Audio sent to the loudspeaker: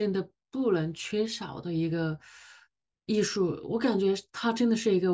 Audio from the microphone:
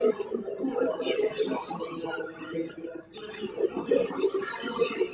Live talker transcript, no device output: none

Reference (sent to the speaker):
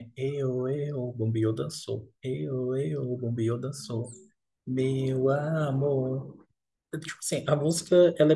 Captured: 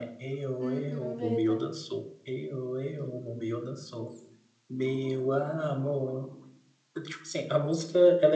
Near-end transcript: Uhum, verdade.

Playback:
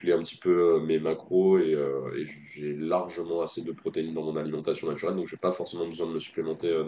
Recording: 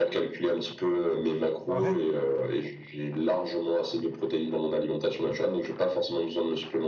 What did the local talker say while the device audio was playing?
ouais.

